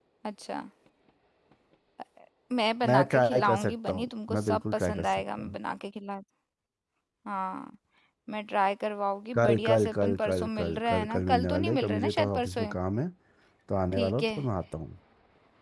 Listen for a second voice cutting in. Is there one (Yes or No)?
Yes